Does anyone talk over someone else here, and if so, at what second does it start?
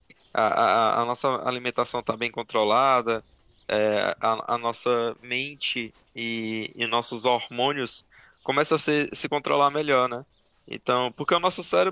none

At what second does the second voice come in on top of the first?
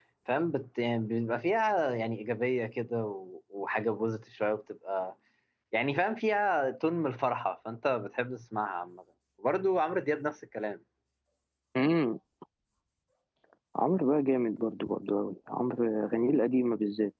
none

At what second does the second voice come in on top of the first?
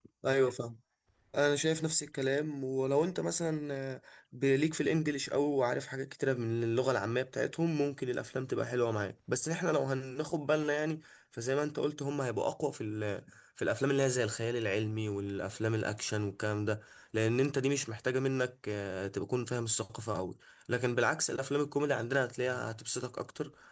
none

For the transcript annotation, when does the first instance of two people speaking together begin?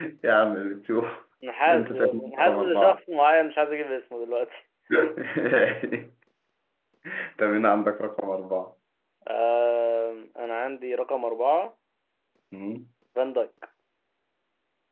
1.7 s

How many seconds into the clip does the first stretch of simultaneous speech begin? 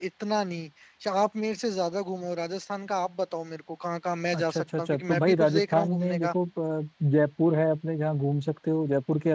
4.3 s

